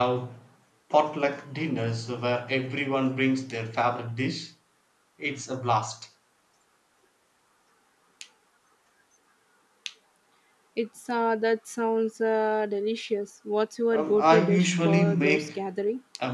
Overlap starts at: 14 s

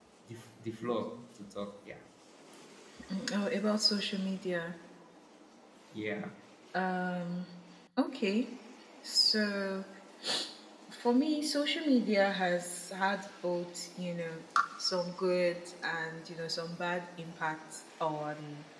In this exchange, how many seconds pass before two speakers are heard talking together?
none

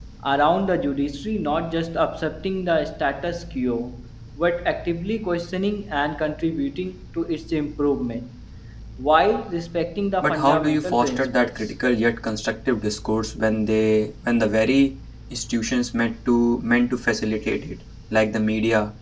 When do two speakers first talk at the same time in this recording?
10 s

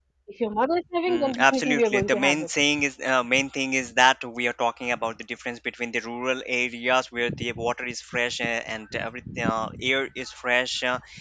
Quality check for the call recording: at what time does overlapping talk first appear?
1 s

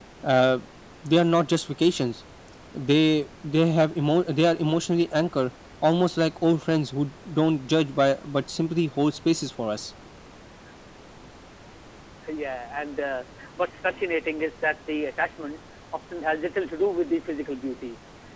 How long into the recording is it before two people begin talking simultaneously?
none

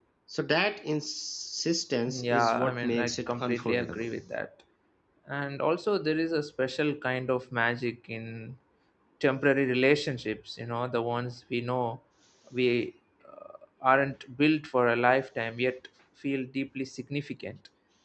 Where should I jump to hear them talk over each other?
2 s

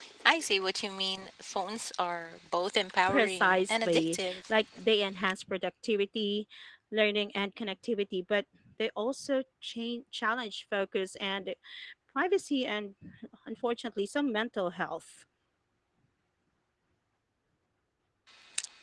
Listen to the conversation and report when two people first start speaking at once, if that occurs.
3 s

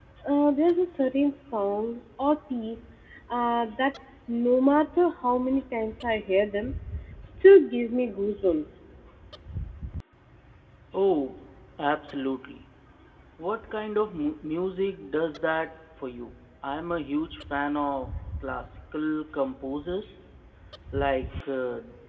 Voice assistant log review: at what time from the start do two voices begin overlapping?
none

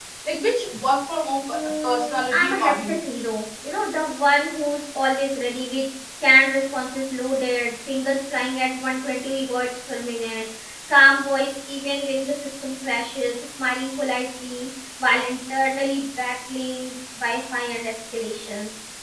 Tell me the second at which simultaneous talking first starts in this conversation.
2 s

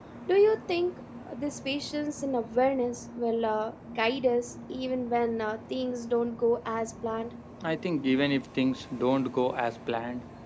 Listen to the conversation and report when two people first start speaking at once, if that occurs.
none

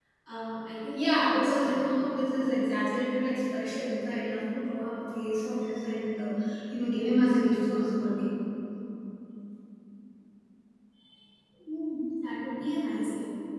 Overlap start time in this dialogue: 1 s

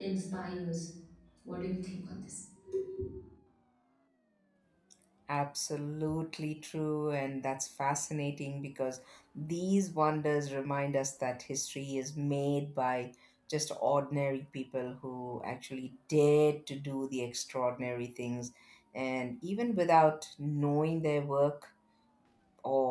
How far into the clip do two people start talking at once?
none

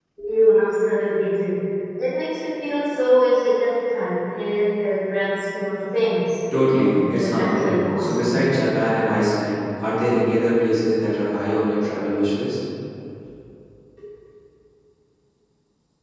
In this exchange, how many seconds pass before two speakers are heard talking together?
7 s

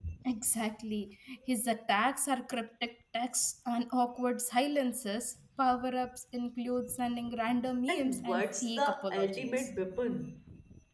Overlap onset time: 8 s

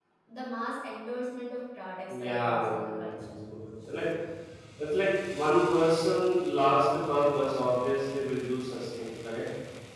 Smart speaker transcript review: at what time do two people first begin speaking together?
2 s

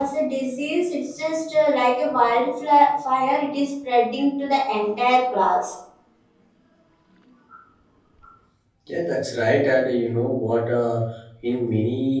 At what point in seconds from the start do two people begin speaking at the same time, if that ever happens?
none

